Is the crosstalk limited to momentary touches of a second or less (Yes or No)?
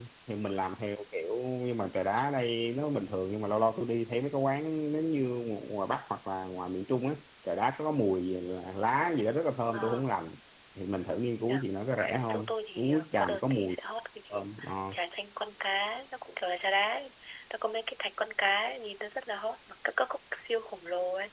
No